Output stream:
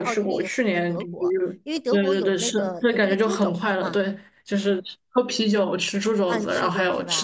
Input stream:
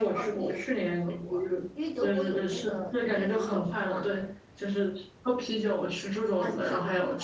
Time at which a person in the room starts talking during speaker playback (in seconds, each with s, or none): none